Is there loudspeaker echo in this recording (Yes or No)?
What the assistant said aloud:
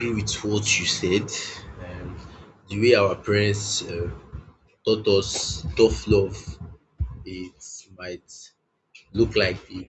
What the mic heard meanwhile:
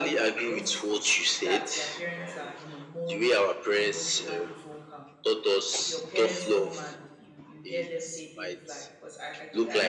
Yes